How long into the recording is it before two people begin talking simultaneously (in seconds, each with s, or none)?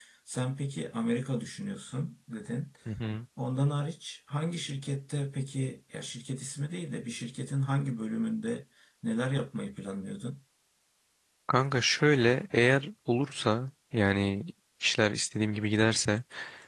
none